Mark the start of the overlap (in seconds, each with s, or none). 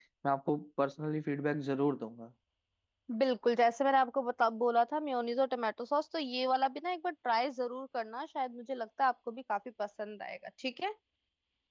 none